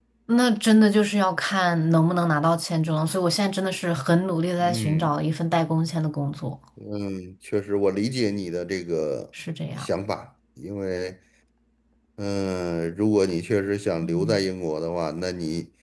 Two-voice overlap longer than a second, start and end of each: none

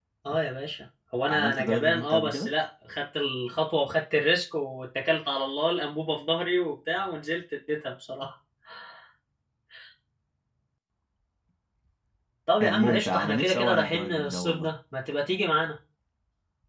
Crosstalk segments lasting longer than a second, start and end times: 1.3-2.5, 12.6-14.7

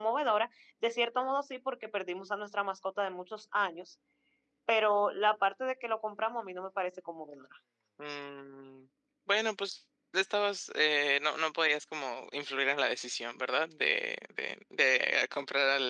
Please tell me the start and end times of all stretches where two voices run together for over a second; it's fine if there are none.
none

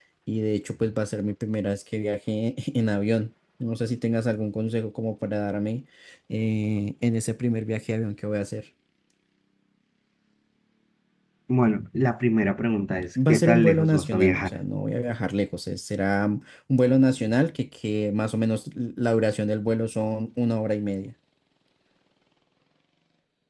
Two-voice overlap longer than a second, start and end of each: 13.3-14.6

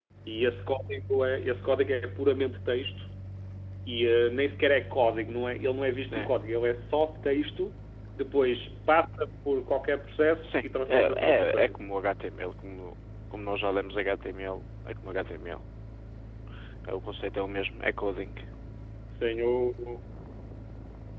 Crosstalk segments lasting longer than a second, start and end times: 10.4-11.8

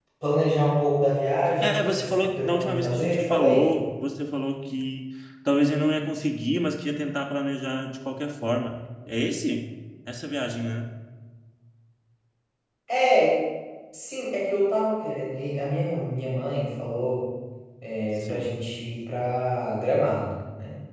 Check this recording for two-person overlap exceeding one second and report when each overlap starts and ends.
1.6-3.7

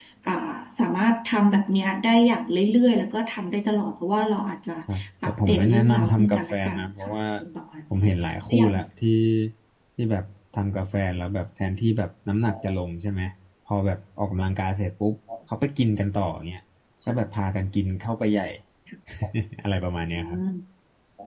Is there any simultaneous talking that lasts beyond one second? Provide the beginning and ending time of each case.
5.2-7.1

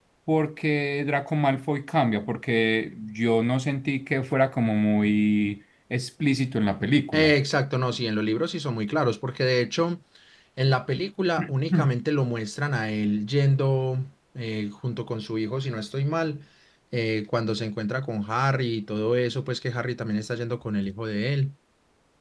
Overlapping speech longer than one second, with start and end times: none

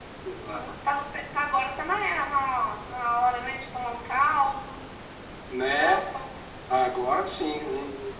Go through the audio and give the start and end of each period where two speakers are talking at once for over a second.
none

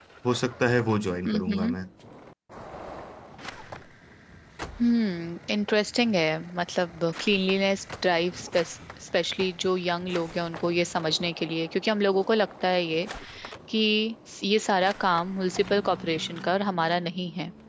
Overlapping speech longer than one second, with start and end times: none

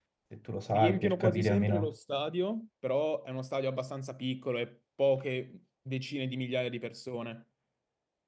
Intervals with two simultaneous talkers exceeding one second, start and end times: 0.7-1.9

